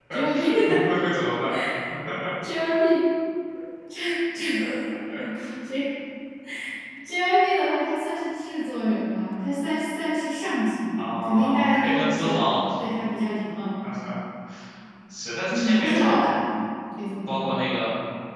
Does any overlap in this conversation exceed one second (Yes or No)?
Yes